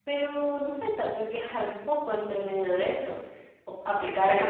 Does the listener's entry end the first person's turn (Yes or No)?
Yes